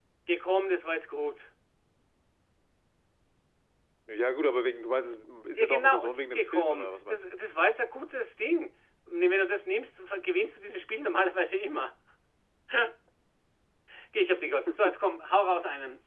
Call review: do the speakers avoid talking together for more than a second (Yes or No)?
No